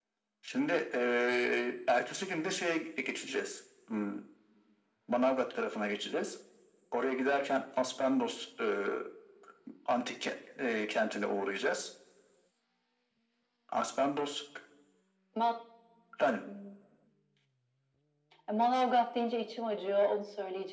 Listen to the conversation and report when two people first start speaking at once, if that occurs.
none

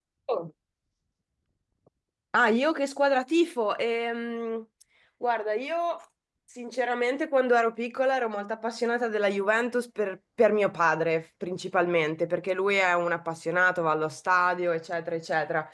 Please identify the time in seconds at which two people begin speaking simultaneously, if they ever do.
none

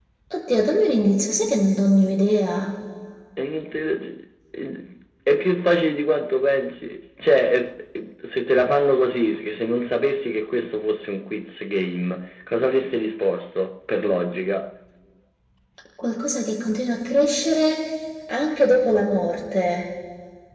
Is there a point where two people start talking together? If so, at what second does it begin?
none

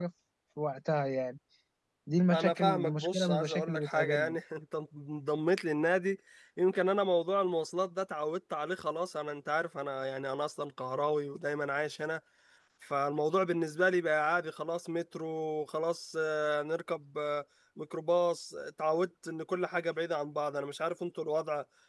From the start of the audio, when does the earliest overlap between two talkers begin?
2.3 s

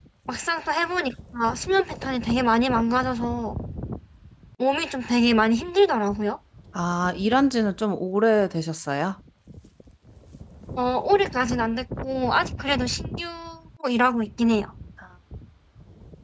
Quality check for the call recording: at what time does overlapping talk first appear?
none

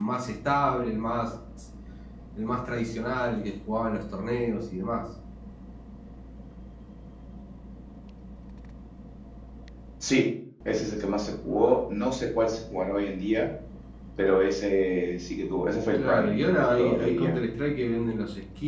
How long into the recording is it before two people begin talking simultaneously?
15.9 s

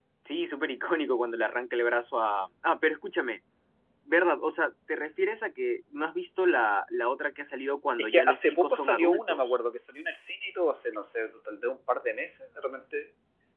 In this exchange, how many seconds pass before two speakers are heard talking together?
8.0 s

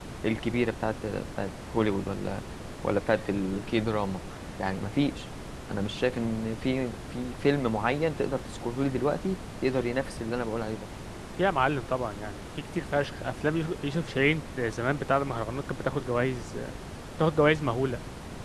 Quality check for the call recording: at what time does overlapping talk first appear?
none

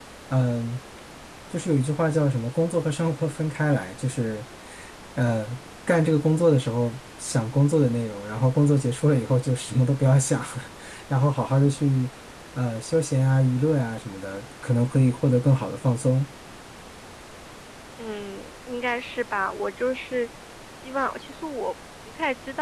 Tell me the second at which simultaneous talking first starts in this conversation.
none

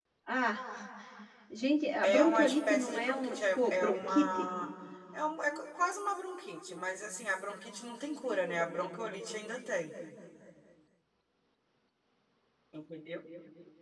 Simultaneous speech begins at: 2.0 s

